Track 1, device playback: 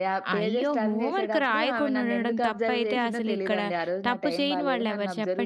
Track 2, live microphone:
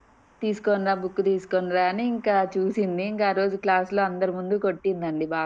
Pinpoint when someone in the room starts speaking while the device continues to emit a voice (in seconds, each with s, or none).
0.4 s